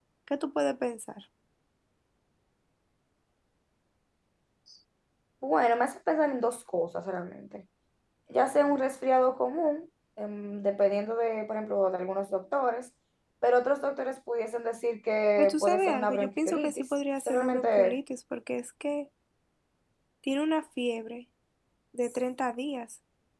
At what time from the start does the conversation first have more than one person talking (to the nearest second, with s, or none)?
15 s